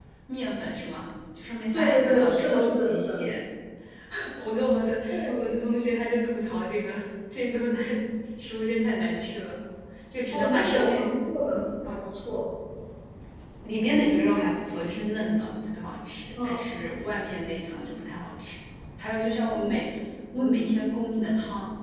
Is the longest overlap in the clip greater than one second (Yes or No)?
Yes